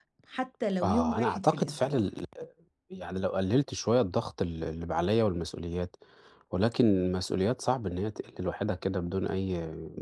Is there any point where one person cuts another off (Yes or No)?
Yes